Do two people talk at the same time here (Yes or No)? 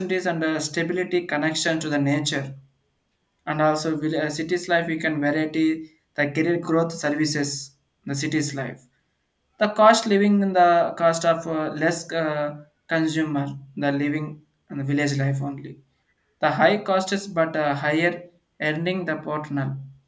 No